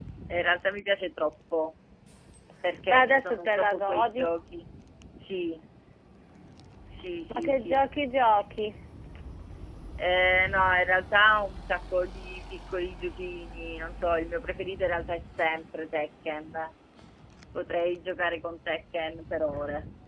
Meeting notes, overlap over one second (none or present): present